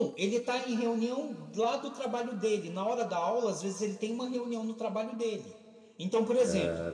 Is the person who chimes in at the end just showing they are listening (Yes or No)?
Yes